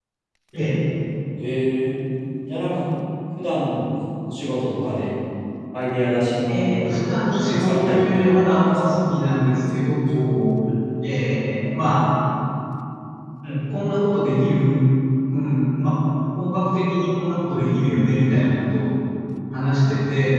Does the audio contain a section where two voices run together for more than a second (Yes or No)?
Yes